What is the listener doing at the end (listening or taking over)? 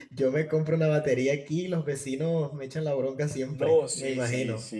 taking over